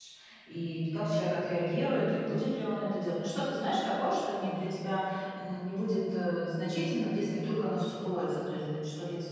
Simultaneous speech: No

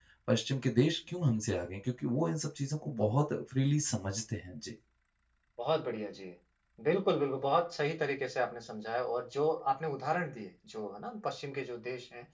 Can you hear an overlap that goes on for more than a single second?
No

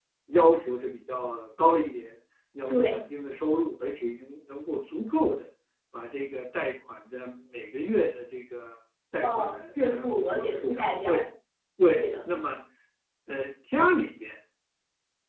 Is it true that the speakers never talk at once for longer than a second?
No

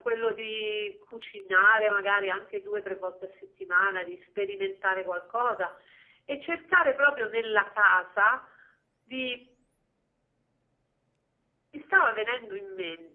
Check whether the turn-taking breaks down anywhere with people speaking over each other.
No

